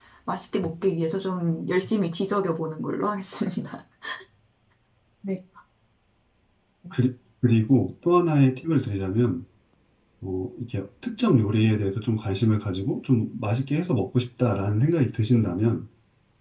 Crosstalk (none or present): none